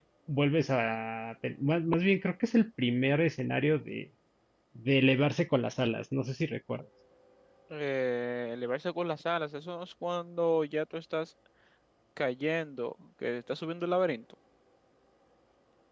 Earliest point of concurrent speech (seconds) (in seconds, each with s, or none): none